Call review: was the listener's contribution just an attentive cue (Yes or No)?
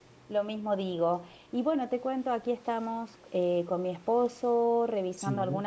Yes